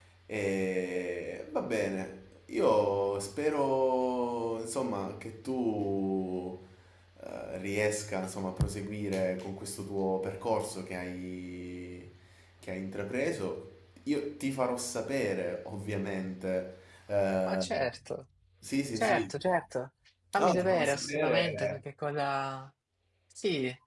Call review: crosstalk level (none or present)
present